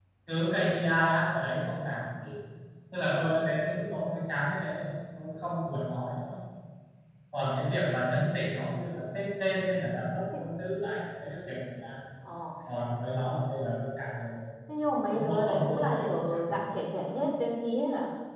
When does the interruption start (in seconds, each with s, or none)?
15.1 s